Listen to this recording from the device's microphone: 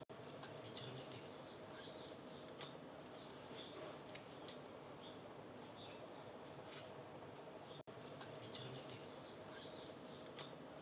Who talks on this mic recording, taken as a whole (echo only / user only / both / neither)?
neither